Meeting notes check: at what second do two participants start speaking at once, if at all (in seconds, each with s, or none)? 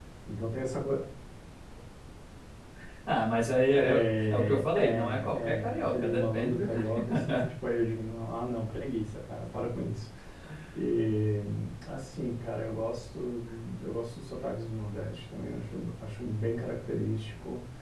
3.7 s